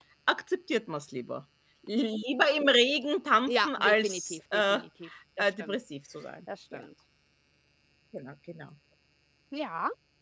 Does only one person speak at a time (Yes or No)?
No